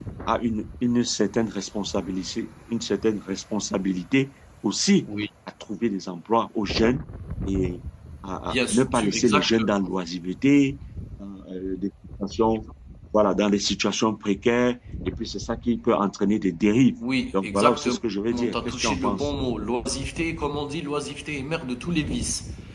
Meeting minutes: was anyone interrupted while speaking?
Yes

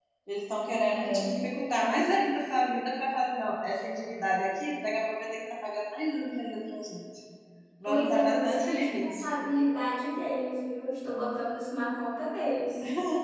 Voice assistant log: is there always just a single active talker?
No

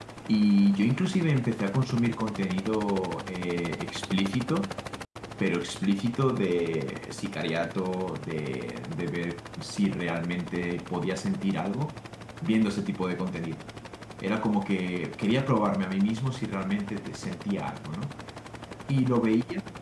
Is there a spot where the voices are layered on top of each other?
No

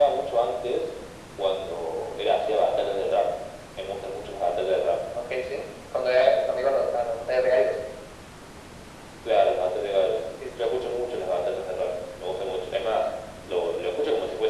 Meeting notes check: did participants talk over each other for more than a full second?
No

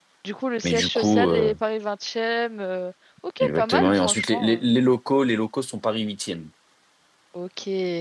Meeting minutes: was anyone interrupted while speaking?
Yes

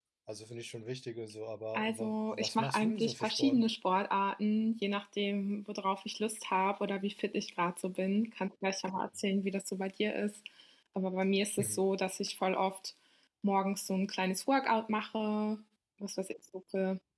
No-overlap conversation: No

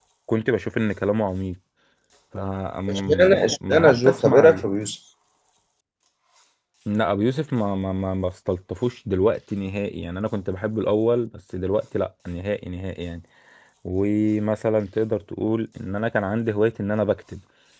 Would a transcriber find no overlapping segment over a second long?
No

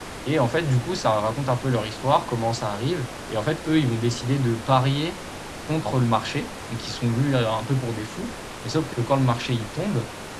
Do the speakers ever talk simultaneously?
No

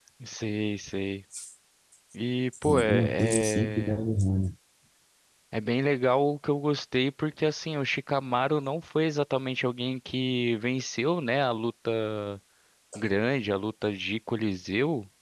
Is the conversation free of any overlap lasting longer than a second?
No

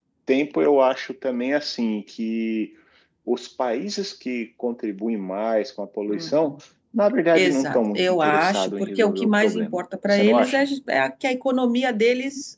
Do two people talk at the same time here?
Yes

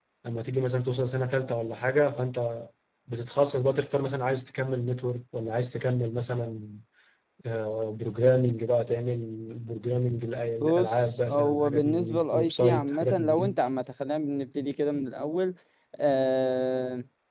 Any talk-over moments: Yes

